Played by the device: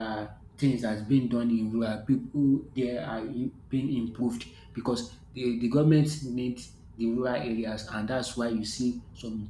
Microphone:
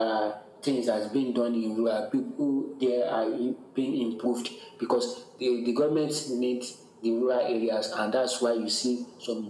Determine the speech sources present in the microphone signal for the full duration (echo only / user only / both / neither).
echo only